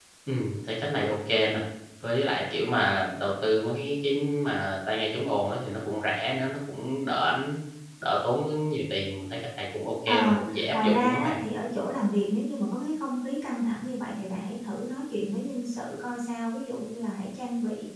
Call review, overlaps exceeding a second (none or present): present